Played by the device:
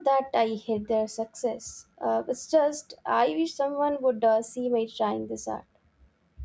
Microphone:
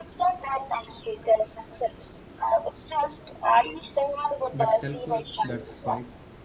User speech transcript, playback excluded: But self worth that's quiet,

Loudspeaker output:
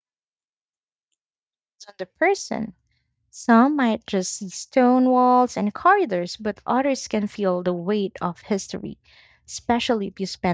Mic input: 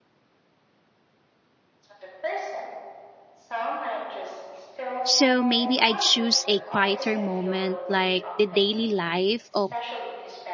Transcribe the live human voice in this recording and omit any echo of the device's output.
So maybe I'd choose a quieter moment like the daily life of

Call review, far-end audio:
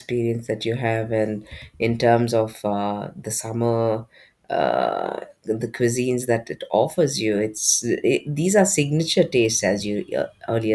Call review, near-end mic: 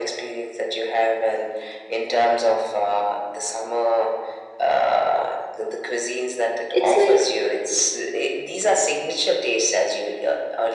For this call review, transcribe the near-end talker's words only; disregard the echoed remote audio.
it's like

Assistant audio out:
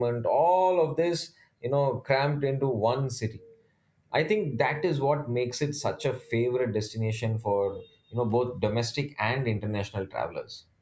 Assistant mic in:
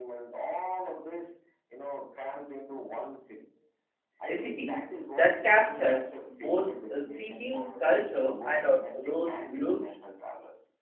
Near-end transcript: a city that captured both uh, seeking culture and also those looks

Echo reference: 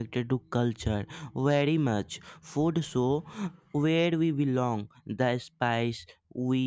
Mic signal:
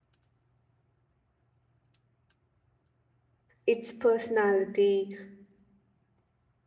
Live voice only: it's personality,

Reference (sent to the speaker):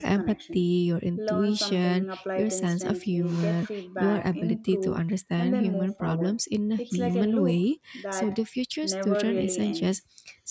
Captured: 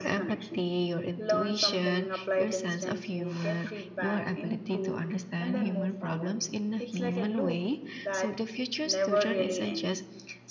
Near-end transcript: none

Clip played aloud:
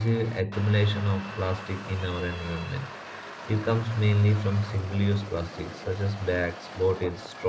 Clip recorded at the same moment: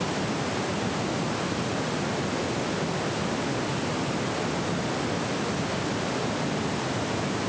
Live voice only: none

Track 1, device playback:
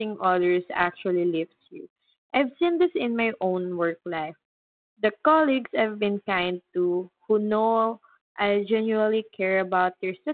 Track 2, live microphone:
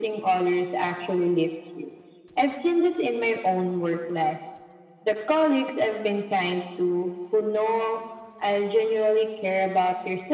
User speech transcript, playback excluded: none

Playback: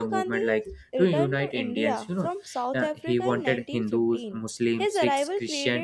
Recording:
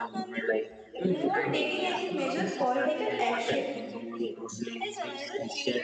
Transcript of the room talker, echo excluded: before taking any major political action.

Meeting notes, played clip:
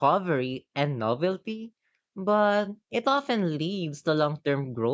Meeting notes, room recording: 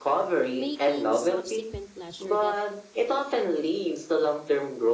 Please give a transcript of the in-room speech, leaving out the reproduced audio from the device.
making subsequent pleasure that

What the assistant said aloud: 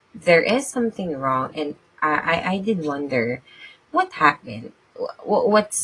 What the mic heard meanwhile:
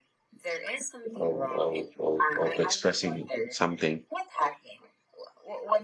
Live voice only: of, of, of of expressing something.

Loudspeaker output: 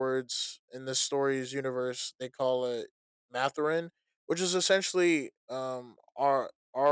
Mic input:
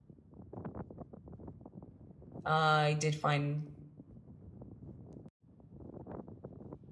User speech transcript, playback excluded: uh, I did find

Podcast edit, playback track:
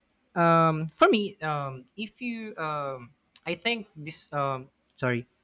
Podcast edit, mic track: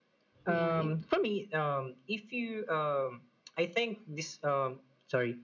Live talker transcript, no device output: yeah, yeah.

